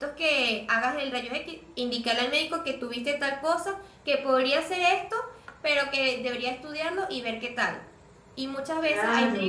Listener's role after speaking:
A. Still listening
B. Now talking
A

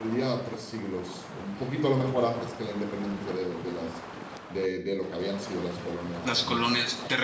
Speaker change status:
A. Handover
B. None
A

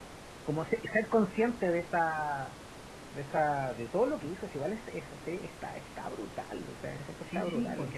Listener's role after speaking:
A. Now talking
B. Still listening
A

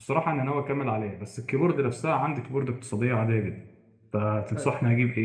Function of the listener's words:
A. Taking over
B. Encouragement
B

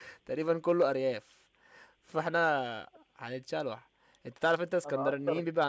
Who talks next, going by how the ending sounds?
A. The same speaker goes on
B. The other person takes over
A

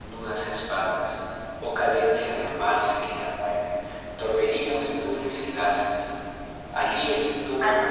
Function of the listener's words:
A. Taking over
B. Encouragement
B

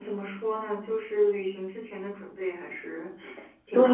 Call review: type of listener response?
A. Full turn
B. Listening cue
A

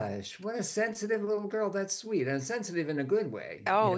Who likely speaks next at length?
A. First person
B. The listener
B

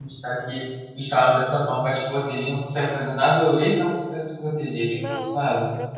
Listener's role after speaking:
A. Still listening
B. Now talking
B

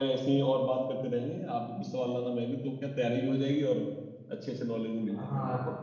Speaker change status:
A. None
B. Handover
B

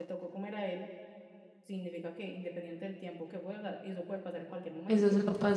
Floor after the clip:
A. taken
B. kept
A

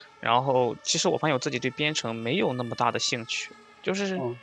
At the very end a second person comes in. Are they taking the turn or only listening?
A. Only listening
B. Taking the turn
A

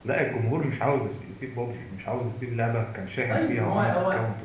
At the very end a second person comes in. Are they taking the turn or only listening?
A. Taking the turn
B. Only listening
A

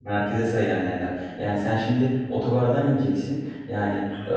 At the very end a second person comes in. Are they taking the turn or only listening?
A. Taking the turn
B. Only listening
B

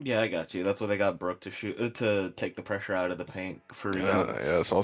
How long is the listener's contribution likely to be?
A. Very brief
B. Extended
B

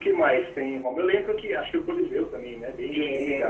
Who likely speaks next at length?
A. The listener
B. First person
A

